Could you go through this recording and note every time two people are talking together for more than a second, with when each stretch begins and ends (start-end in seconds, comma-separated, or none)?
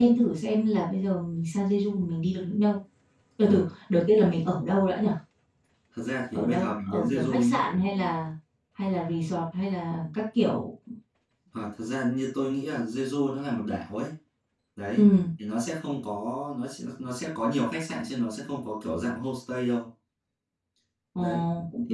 6.3-7.5